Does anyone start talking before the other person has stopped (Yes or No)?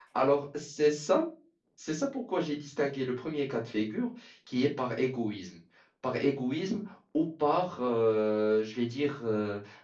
No